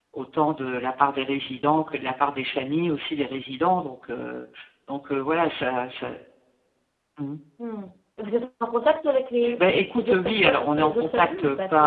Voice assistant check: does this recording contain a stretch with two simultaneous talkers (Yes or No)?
Yes